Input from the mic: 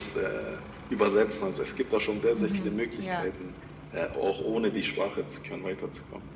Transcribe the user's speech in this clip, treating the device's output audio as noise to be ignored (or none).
Mhm, ja,